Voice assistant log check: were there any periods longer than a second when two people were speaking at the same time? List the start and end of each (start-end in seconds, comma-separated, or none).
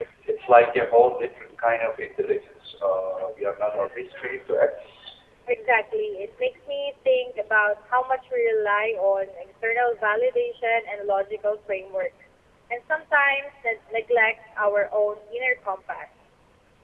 none